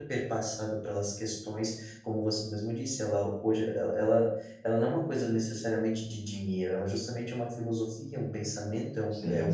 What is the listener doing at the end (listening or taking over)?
listening